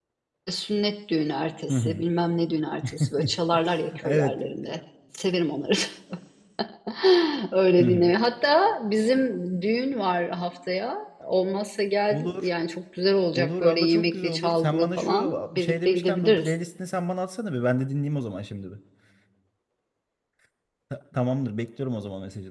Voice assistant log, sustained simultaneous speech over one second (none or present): present